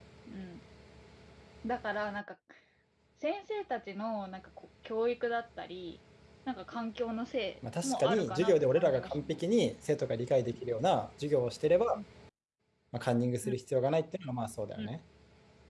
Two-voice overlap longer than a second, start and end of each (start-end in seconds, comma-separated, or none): 7.8-9.4